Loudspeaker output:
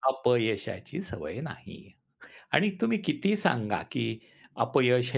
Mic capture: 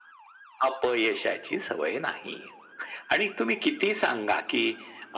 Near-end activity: none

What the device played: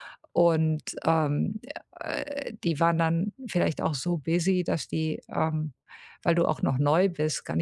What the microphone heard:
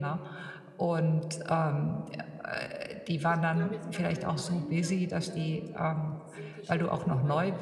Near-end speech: present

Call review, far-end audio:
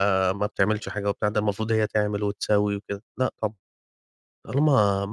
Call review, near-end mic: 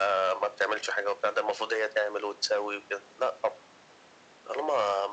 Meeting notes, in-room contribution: none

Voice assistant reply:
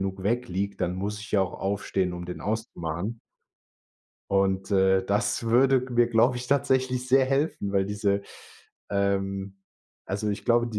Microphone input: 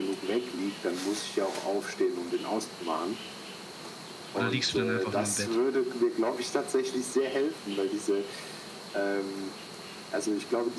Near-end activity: present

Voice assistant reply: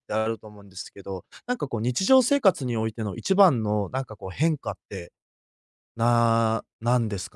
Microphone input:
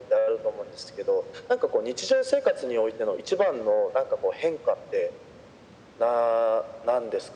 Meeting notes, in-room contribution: none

